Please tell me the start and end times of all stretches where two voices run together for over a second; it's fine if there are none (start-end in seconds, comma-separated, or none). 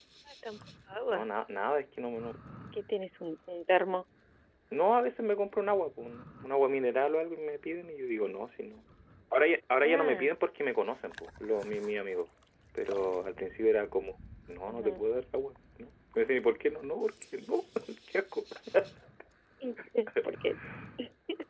none